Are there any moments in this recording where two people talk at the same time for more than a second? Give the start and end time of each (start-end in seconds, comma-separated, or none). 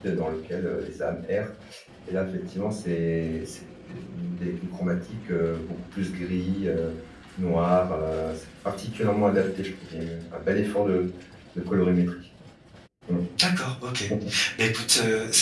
none